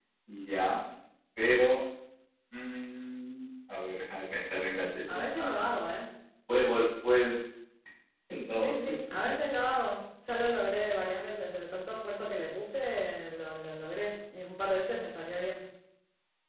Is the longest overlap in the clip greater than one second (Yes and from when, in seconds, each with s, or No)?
No